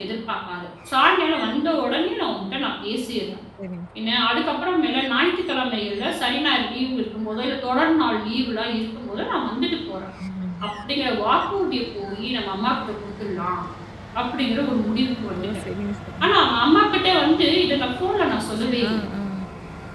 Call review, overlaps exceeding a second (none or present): none